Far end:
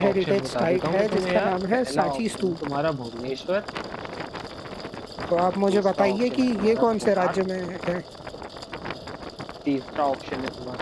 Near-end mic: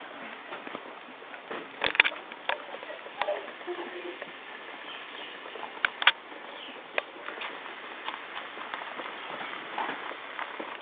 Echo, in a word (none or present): none